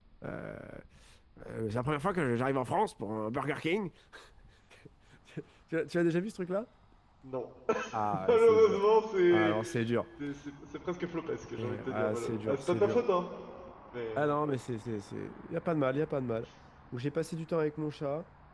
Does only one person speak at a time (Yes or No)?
No